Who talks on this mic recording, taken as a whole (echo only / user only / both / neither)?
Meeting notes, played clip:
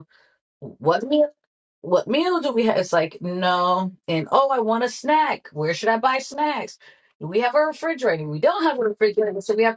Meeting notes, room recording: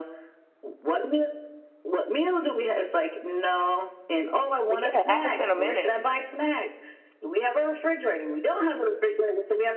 both